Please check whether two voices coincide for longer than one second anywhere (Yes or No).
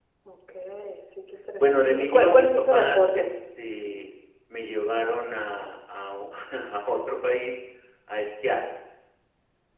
Yes